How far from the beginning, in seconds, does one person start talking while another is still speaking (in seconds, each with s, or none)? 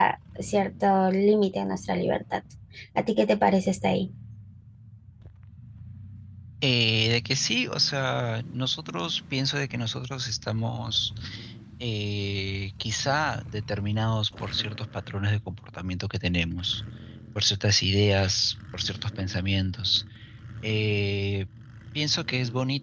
none